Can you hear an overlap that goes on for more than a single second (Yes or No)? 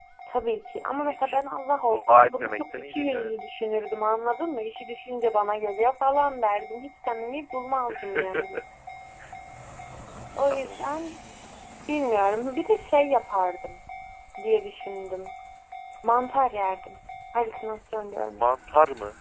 Yes